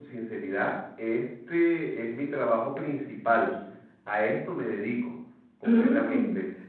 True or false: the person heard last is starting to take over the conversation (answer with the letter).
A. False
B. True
A